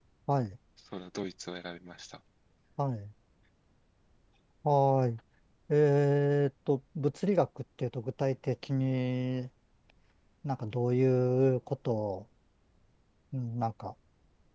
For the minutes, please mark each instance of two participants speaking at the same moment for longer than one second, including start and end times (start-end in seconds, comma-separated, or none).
none